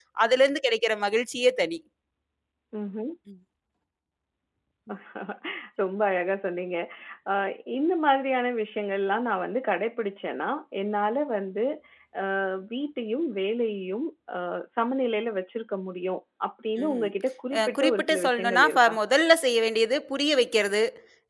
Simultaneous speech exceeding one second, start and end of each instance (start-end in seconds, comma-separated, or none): 17.6-18.9